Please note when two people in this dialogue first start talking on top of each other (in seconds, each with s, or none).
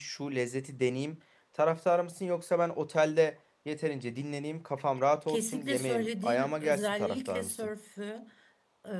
5.3 s